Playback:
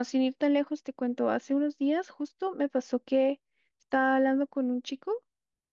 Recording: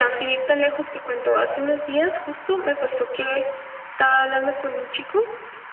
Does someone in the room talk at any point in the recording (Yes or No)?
No